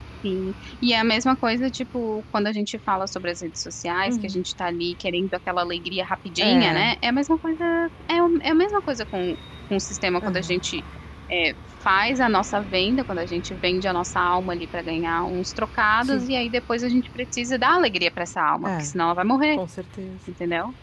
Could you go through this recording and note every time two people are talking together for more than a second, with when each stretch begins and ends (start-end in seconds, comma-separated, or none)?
none